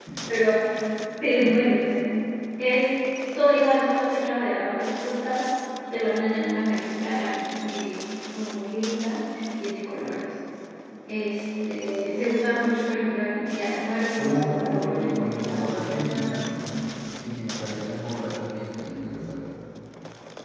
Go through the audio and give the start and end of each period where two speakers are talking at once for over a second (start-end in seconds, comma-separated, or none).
14.1-16.4